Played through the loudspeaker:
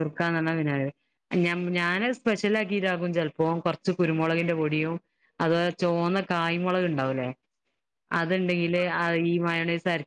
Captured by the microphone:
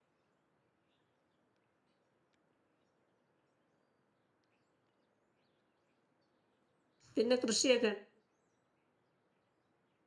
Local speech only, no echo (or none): പിന്നെ കൃഷിയെ